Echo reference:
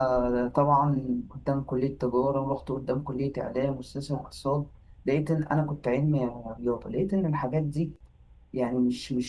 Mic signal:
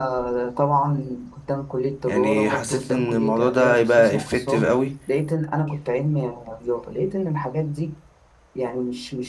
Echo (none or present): present